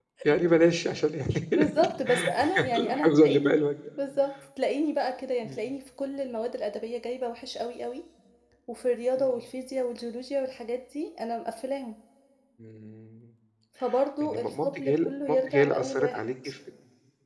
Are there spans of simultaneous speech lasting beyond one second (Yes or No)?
Yes